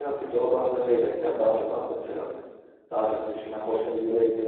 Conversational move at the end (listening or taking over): listening